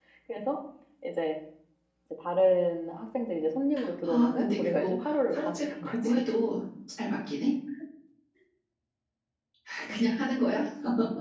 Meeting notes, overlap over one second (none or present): present